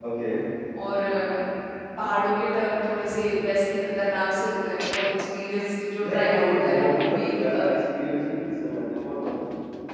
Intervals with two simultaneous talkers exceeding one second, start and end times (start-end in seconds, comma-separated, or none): 6.0-7.6